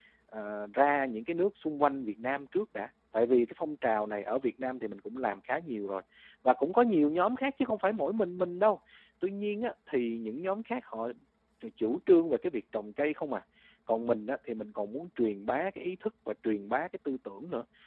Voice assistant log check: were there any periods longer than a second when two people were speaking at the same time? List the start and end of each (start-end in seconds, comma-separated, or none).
none